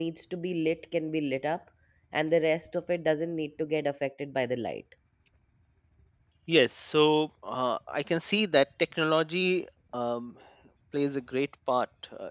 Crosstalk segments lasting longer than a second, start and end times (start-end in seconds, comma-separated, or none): none